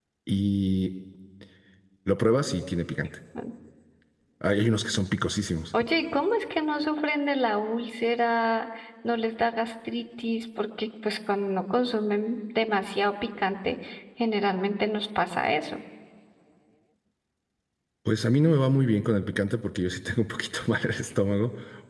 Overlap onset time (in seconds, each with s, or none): none